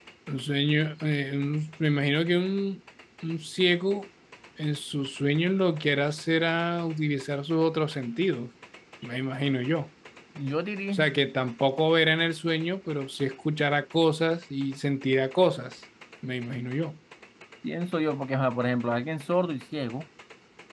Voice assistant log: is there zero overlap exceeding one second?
Yes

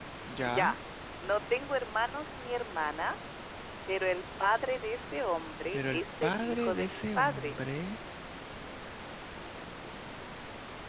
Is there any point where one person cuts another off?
Yes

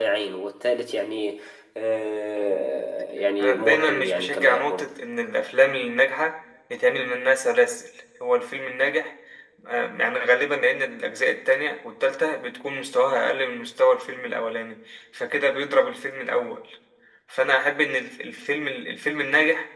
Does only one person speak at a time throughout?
No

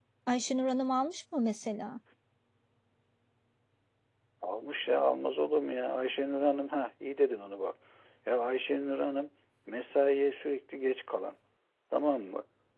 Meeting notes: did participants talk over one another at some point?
No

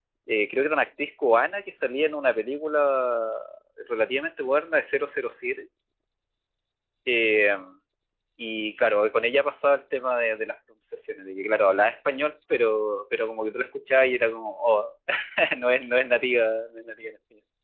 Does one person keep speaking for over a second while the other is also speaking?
No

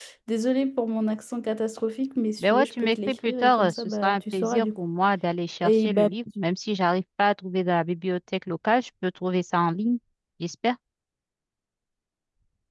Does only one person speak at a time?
No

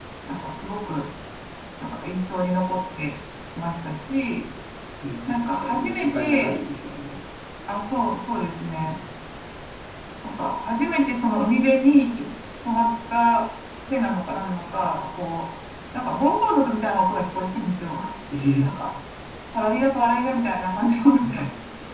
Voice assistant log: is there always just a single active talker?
No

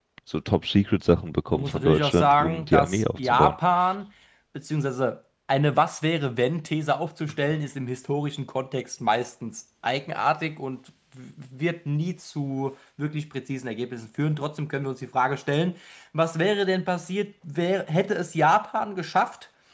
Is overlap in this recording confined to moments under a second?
No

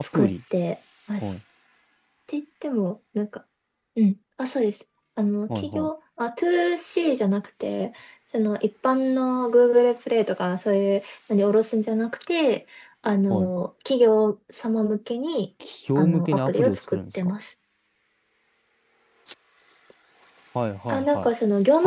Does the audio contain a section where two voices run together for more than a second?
Yes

